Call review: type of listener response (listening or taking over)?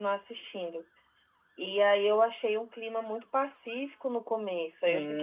taking over